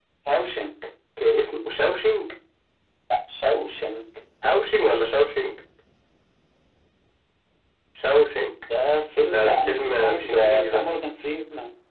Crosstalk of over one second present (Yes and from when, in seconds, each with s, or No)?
Yes, from 9.2 s